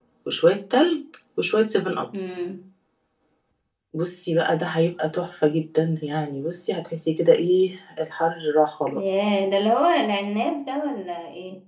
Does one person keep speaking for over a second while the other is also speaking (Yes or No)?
No